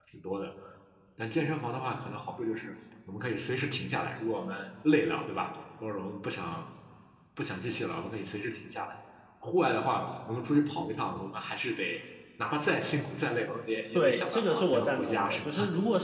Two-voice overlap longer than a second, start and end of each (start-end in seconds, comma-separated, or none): 13.9-15.5